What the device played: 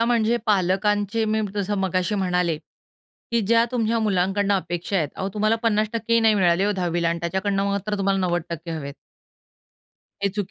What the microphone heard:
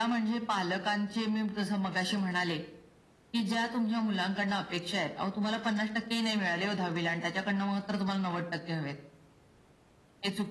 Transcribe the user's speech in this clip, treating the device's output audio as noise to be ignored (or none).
none